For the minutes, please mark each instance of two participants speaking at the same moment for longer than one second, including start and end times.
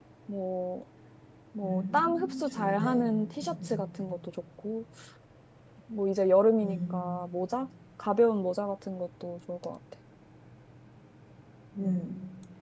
1.6-2.9

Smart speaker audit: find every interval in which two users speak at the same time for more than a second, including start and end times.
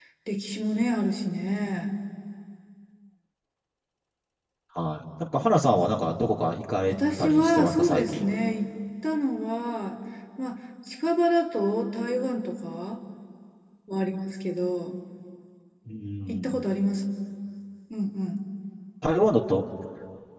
6.9-8.3

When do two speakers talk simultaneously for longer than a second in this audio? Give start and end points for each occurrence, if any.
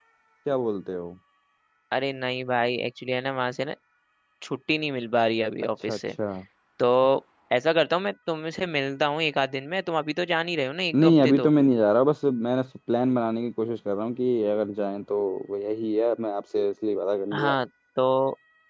none

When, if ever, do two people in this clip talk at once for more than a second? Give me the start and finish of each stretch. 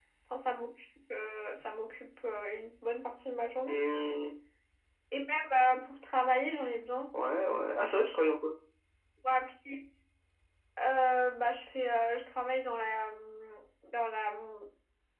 none

